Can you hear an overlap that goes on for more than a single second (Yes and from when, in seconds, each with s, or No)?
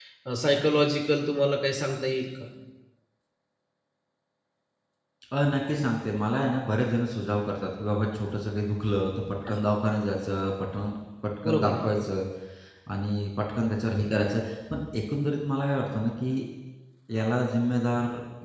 No